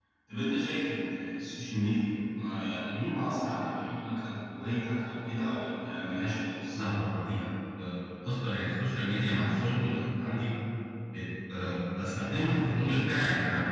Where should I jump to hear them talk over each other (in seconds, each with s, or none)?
none